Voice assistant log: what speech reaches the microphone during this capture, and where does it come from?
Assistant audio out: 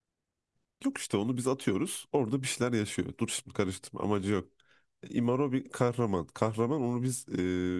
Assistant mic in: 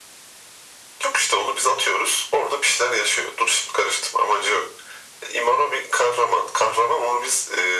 echo only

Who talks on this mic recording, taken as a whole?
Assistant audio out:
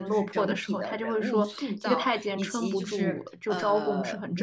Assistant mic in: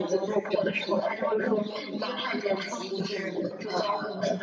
echo only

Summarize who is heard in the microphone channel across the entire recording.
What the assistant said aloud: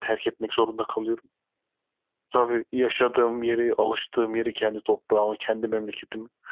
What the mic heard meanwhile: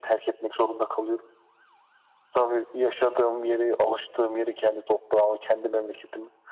echo only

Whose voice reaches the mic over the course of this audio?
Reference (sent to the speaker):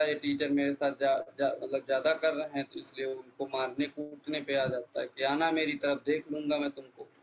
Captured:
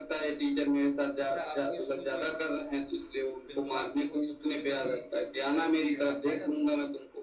both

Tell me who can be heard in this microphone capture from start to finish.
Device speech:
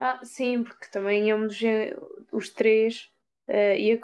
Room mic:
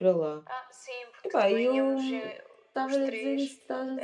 both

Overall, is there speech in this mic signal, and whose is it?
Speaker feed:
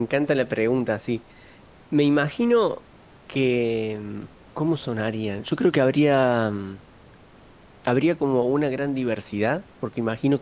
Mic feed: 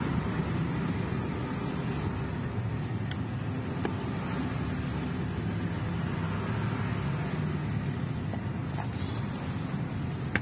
neither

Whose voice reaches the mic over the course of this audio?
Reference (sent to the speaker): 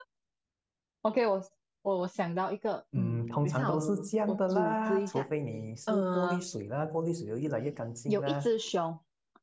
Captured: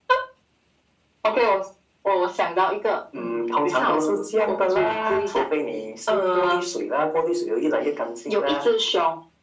echo only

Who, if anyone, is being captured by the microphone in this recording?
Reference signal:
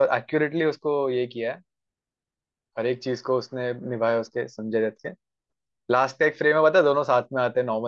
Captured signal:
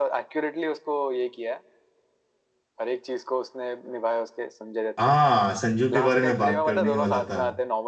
both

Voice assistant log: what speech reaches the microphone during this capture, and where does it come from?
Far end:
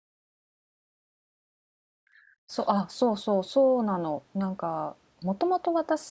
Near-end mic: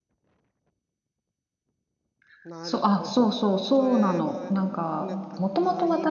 both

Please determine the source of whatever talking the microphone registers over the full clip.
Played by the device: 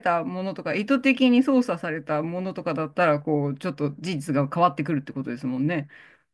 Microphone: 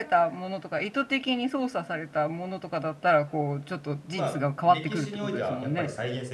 both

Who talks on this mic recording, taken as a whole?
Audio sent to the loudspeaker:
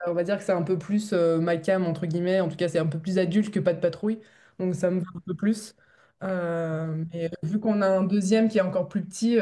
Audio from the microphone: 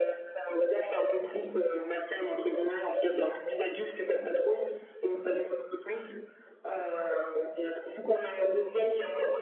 echo only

